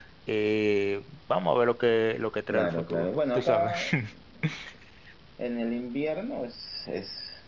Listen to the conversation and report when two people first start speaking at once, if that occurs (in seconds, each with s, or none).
2.5 s